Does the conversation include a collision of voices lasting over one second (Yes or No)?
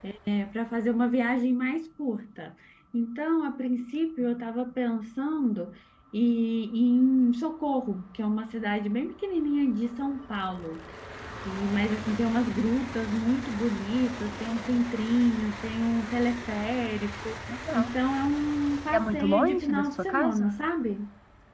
Yes